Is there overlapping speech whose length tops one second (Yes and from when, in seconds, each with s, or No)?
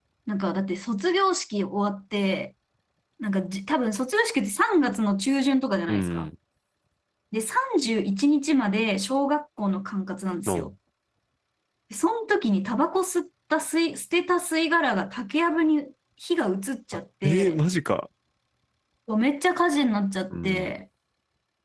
No